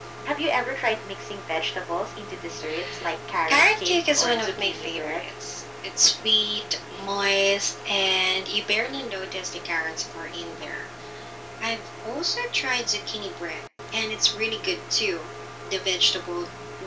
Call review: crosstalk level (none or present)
present